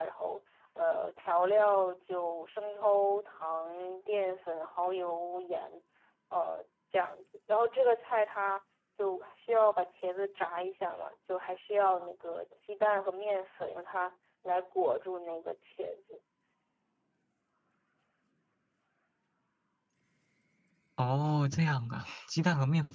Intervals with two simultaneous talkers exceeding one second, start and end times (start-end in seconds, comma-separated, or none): none